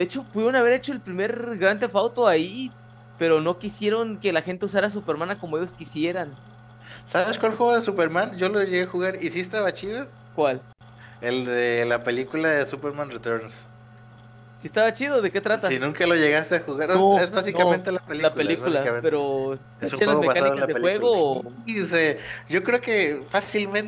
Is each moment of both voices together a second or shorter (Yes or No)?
No